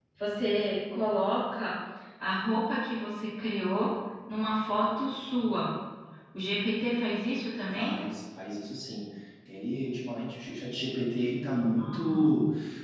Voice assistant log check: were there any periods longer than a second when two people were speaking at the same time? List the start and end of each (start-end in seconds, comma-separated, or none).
none